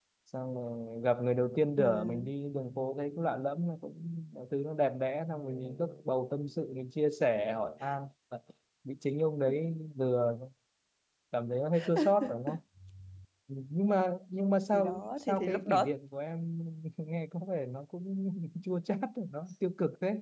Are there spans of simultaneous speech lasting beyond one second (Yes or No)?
Yes